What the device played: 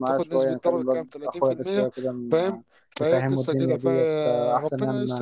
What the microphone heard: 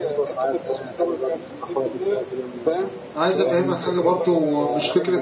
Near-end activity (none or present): present